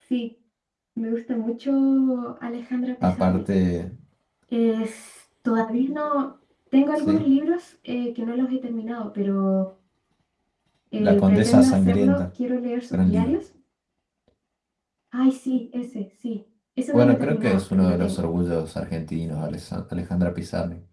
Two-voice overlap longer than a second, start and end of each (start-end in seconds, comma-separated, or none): 11.0-12.2, 16.9-18.2